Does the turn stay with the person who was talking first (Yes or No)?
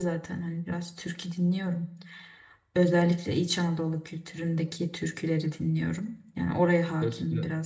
No